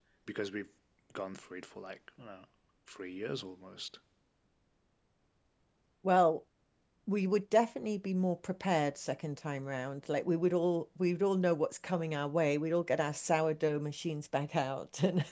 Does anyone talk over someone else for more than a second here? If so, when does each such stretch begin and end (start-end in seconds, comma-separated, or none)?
none